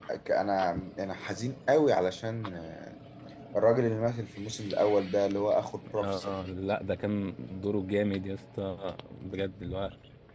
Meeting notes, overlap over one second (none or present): none